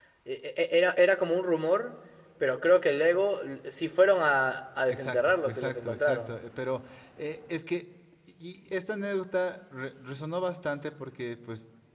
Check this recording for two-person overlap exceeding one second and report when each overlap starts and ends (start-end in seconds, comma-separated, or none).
4.9-6.3